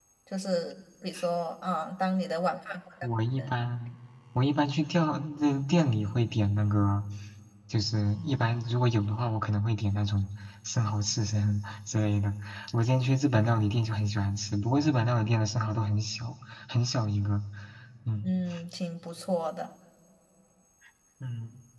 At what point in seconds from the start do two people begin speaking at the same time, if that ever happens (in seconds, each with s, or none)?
none